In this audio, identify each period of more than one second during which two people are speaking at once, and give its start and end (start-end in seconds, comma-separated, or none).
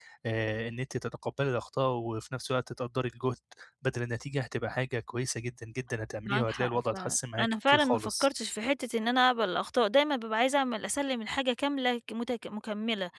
6.3-8.3